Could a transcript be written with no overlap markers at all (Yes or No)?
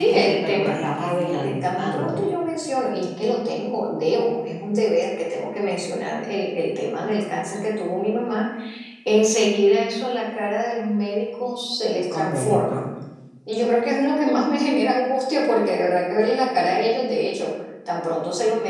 No